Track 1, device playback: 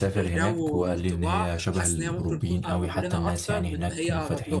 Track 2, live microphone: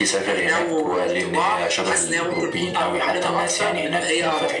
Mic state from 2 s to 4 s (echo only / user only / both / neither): echo only